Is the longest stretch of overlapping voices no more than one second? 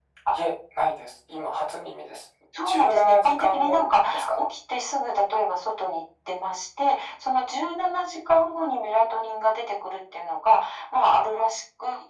No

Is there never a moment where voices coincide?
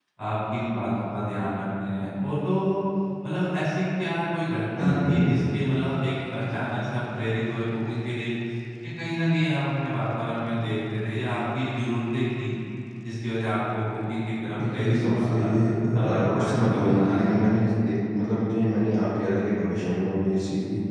No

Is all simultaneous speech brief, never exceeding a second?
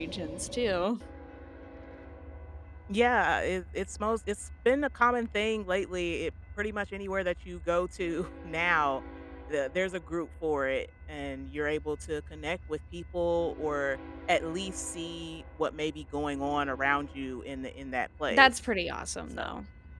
Yes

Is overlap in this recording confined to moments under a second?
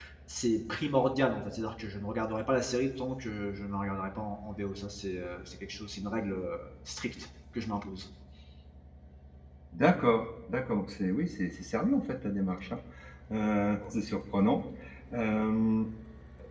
Yes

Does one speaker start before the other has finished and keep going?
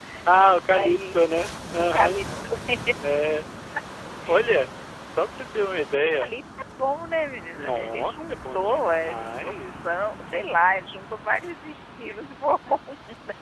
Yes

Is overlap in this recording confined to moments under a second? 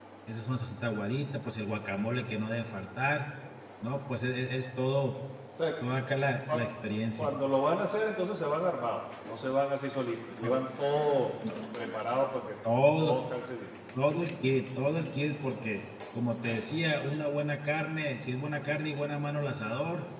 Yes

